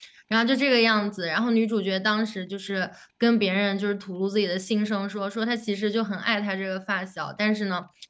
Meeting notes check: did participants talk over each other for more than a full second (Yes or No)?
No